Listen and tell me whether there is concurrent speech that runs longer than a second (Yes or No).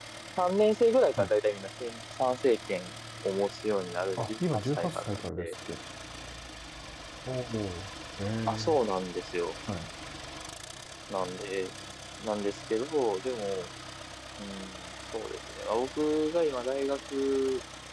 Yes